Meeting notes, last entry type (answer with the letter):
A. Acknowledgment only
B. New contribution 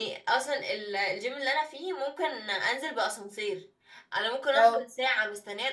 A